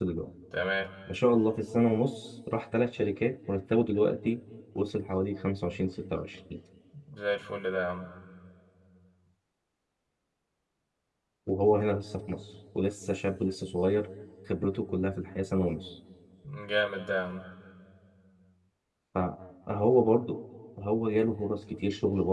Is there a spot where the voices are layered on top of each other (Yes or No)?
No